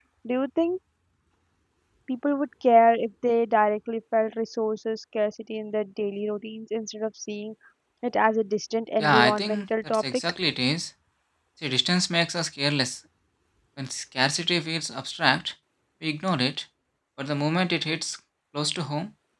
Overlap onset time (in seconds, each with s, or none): 9.0 s